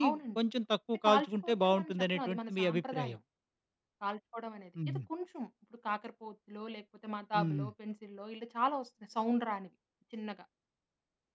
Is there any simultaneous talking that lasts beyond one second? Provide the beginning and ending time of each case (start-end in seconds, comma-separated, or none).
1.1-3.2